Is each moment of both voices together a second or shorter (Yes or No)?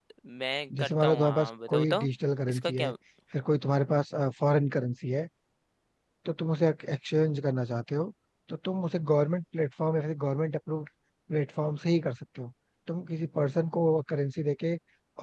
No